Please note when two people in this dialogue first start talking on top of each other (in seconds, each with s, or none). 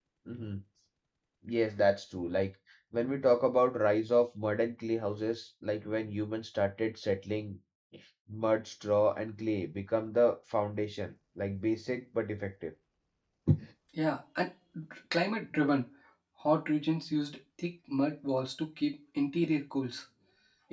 none